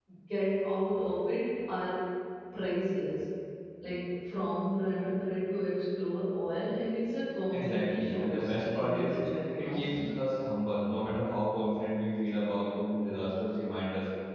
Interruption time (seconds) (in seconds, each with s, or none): 7.5 s